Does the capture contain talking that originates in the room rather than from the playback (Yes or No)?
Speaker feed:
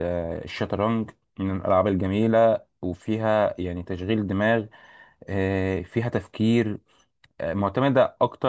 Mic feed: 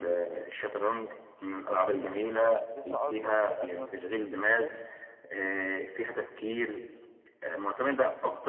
Yes